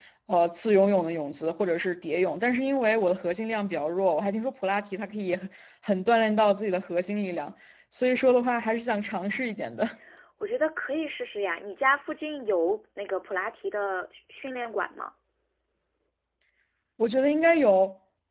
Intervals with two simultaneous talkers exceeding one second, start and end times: none

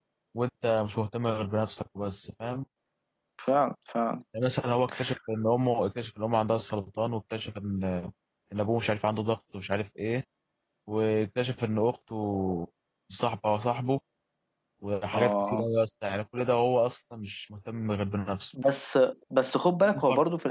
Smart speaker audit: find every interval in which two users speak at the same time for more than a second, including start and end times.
none

